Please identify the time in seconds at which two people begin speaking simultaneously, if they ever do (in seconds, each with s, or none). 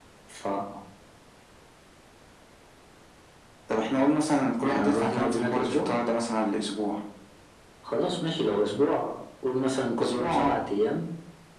4.6 s